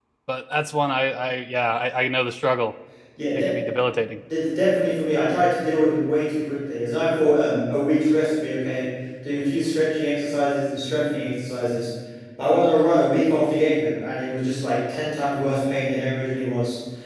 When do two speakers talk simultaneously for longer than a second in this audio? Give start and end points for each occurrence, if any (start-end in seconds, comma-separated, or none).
none